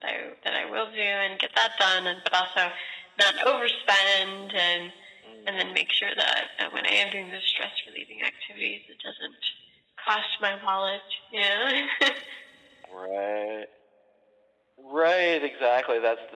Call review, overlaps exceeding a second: none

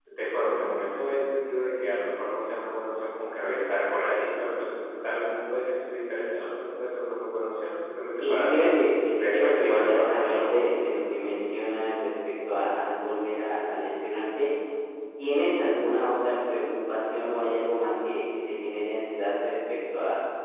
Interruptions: present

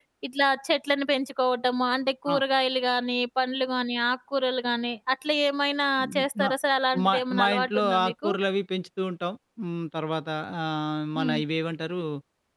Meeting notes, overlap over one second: present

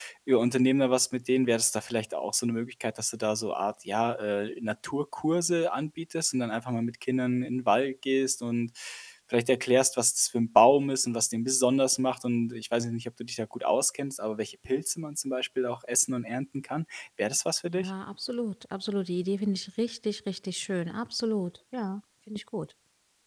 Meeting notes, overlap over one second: none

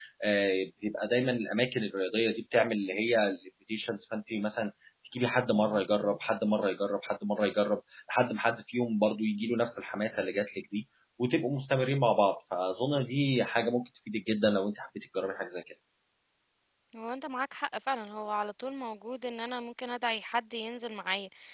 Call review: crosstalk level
none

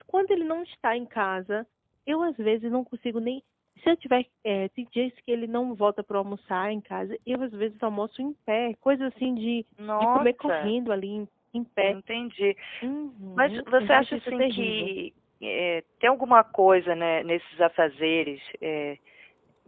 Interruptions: present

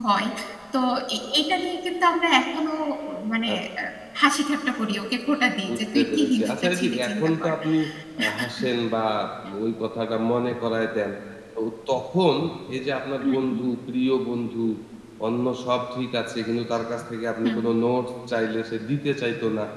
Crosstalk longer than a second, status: present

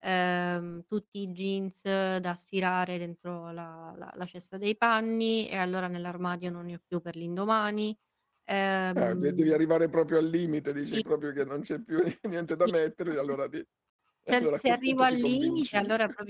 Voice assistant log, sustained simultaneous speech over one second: present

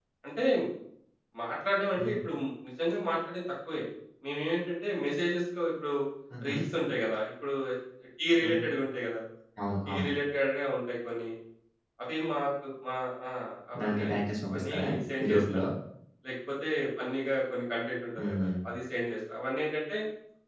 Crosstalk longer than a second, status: none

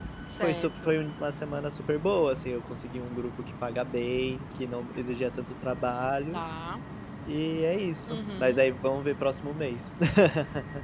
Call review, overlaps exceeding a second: none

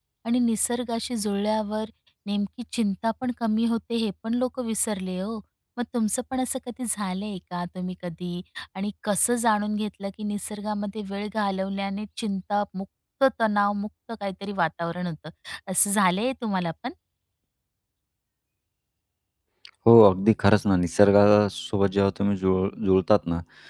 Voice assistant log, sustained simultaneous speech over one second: none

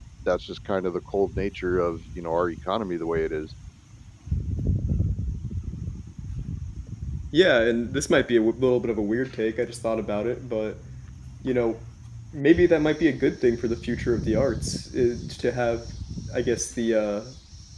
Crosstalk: none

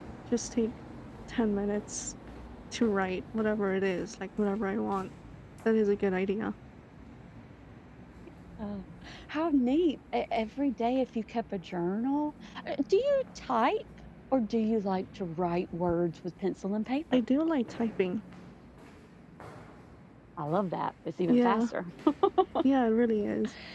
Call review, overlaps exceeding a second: none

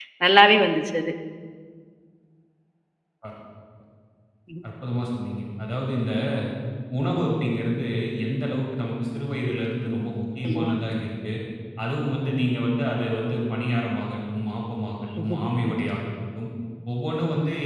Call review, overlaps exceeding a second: none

